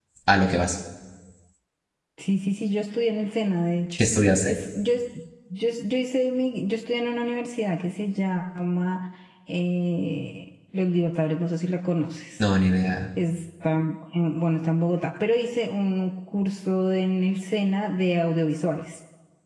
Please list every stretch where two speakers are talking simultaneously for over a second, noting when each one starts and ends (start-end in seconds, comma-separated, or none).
none